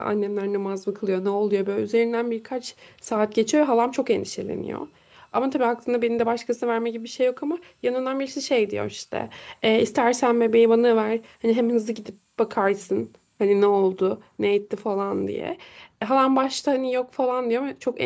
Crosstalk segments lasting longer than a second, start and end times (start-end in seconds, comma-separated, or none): none